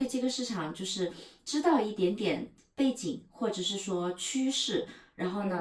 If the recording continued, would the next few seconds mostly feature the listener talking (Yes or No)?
No